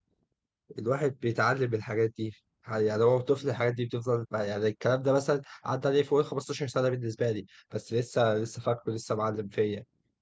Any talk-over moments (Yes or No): No